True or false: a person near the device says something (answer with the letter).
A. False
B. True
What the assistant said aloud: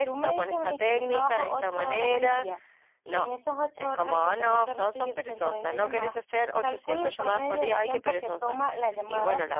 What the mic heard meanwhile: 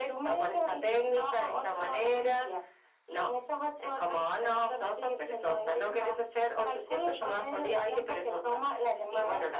A